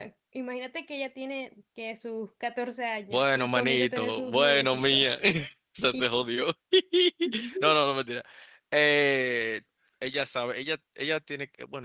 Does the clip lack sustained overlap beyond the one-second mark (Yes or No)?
No